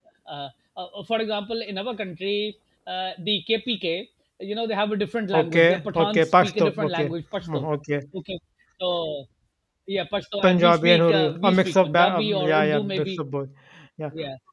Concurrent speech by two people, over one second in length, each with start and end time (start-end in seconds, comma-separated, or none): 5.3-7.1, 10.4-13.2